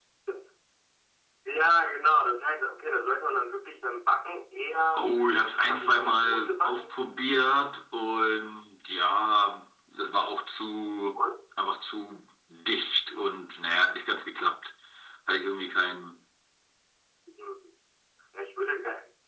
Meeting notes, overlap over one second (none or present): present